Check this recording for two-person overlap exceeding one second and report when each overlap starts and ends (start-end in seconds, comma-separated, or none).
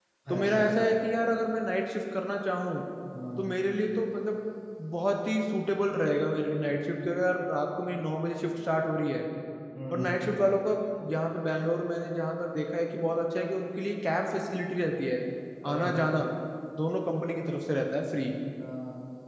none